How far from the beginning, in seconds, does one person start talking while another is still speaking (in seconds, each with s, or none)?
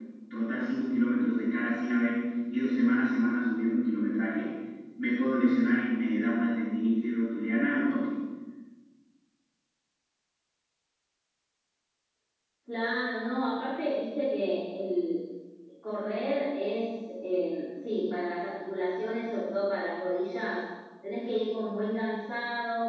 none